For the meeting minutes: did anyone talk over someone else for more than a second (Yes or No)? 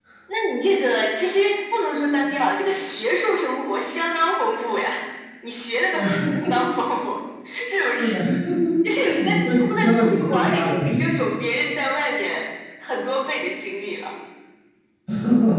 Yes